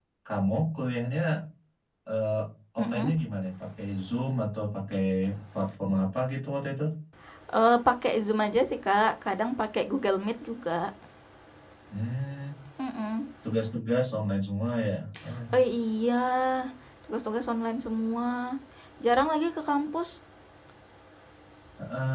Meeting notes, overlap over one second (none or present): none